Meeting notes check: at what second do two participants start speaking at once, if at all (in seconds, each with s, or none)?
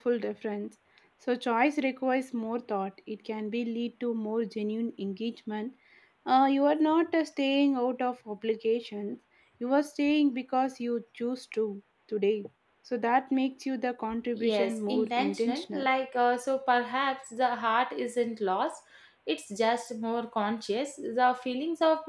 14.3 s